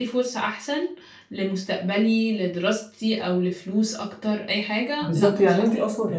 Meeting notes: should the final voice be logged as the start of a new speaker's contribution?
Yes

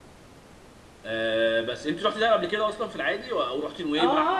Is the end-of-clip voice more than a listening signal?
Yes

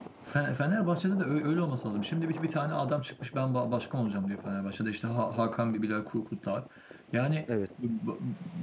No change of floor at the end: Yes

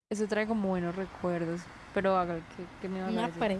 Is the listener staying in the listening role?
No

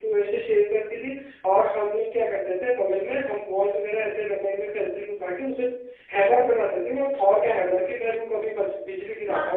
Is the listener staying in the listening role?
No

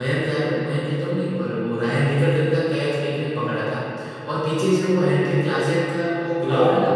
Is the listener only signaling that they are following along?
No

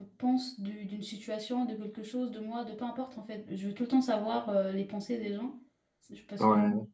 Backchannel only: Yes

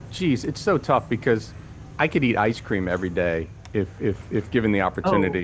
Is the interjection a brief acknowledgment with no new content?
Yes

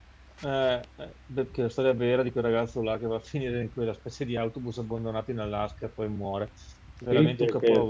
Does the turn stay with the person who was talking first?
No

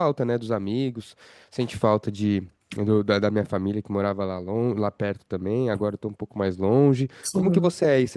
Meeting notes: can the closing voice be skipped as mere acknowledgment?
Yes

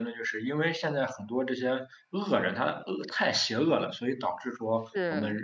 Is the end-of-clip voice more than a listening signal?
No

